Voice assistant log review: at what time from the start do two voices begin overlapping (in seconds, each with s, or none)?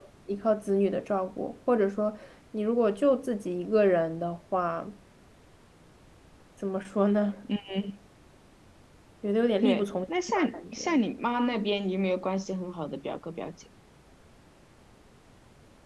9.6 s